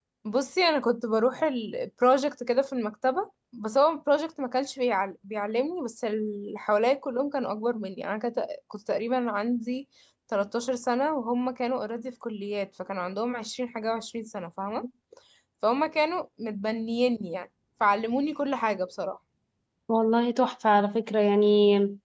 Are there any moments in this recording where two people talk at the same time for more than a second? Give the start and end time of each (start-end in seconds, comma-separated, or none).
none